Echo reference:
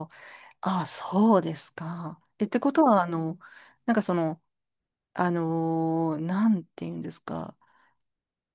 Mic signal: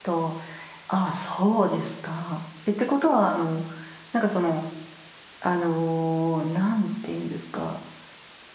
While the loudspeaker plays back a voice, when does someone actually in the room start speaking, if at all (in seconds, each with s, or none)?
none